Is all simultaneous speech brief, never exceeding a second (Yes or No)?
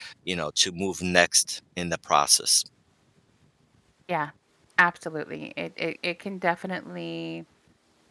Yes